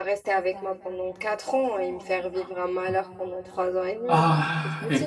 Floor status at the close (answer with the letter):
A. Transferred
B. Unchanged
A